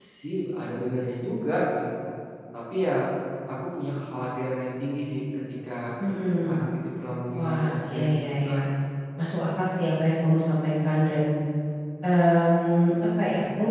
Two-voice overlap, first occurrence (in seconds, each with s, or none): 7.3 s